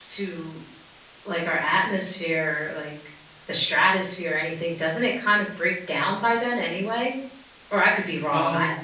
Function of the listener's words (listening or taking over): taking over